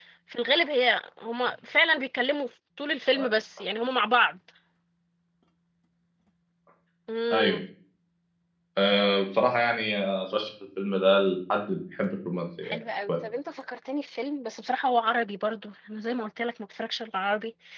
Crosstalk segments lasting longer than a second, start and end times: none

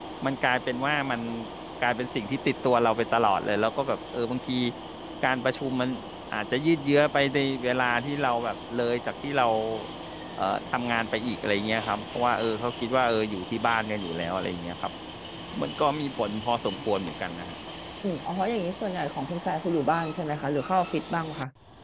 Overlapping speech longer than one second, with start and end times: none

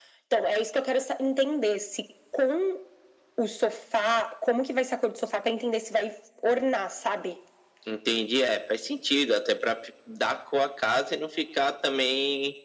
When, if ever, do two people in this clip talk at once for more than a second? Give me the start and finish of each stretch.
none

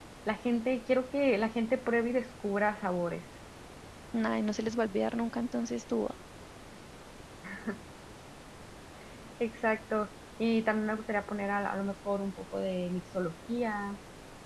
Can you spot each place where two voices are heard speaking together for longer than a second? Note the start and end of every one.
none

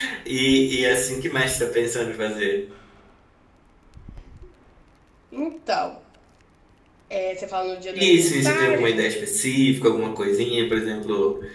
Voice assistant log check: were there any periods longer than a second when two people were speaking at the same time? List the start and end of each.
7.9-9.1

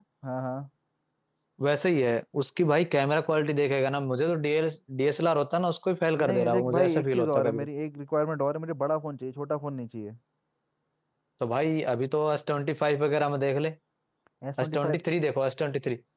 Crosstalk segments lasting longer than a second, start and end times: 6.2-7.7

